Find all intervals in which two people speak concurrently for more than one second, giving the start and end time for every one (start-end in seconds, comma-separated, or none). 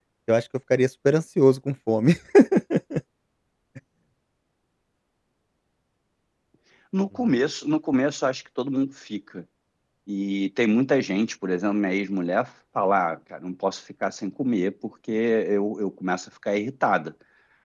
none